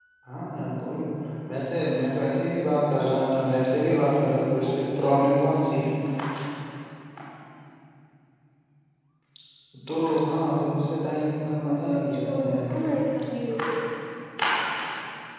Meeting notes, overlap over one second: present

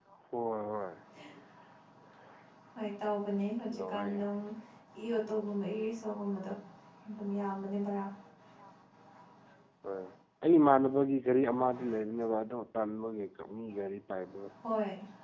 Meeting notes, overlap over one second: none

